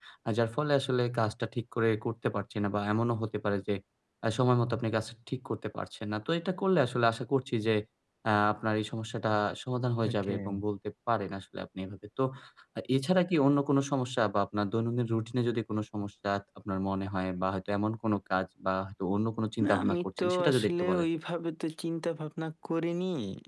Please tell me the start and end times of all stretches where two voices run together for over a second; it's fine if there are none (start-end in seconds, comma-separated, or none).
19.6-21.0